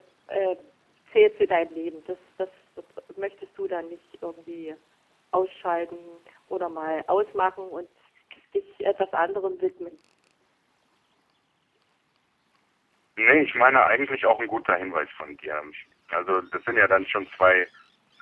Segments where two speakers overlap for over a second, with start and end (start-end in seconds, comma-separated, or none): none